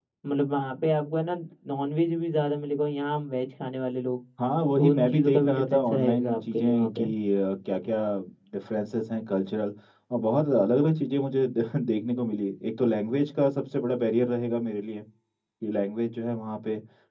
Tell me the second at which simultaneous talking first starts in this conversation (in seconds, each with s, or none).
4.8 s